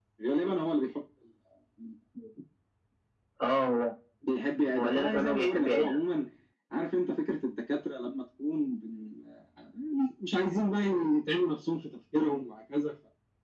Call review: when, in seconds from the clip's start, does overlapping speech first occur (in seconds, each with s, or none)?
4.8 s